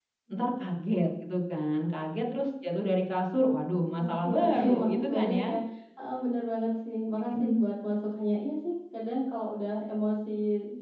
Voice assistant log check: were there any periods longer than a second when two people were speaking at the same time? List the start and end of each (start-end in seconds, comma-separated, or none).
4.0-5.5